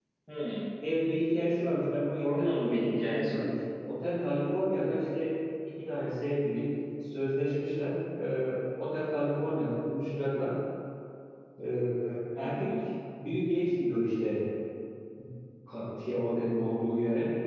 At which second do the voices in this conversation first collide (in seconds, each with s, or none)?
2.2 s